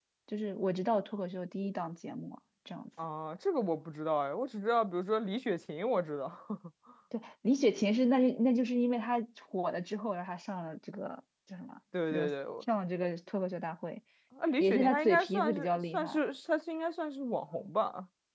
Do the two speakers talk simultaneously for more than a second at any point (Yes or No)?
Yes